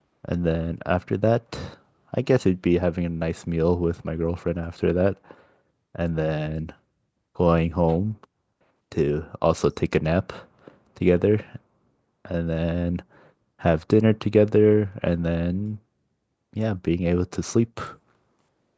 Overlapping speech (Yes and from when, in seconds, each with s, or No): No